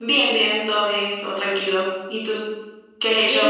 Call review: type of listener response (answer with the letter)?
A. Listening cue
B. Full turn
B